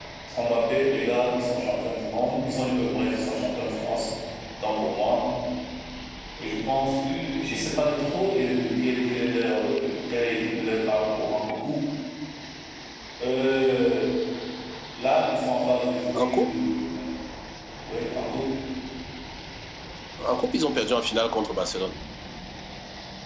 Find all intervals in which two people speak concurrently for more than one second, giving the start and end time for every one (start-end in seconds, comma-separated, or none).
none